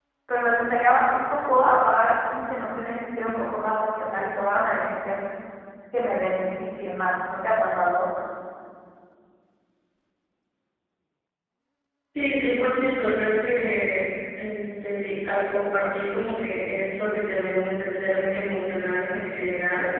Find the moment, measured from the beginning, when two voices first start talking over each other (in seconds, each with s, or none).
none